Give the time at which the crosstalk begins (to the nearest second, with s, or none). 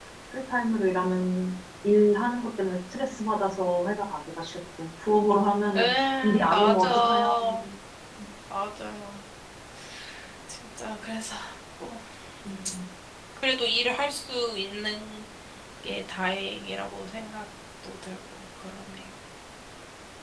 6 s